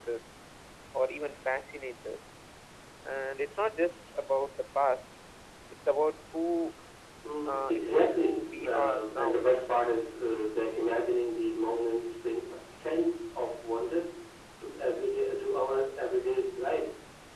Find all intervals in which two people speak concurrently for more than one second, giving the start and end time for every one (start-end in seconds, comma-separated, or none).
7.5-9.4